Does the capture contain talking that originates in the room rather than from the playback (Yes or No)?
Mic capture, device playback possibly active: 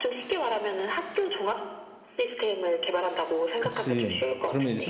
Yes